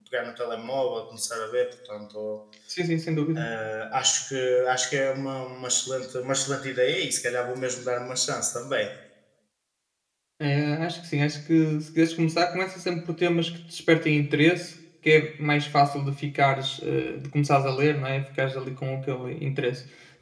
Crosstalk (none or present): none